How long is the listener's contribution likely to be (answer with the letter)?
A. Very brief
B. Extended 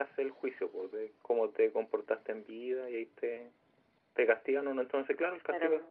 A